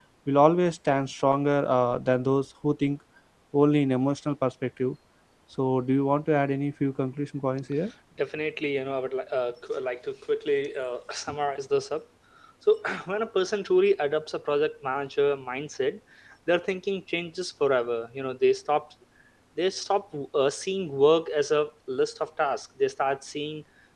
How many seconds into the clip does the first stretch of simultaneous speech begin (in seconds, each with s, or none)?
none